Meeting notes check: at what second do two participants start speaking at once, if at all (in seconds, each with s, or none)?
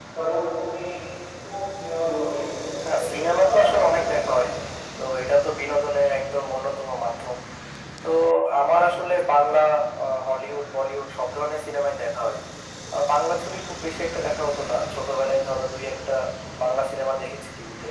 2.9 s